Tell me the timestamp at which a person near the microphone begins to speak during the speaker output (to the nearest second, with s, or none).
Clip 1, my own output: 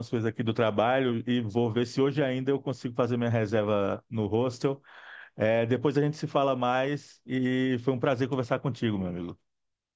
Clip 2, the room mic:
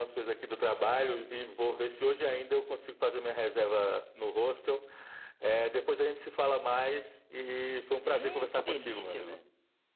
8 s